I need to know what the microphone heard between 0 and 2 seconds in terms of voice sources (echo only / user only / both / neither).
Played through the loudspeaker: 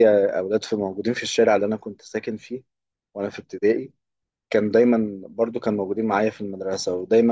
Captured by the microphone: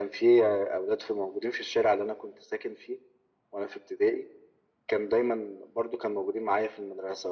echo only